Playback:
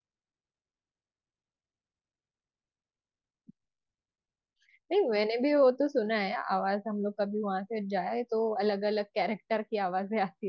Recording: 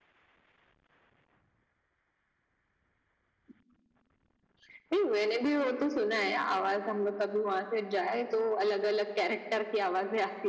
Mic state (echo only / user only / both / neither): echo only